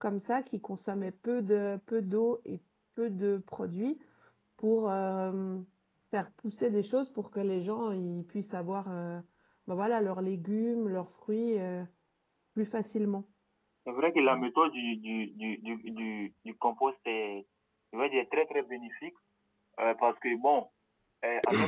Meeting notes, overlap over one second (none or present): none